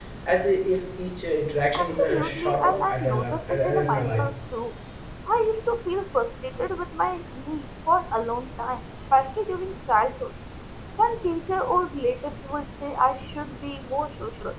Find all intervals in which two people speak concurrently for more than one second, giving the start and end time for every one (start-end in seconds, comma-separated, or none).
1.8-4.3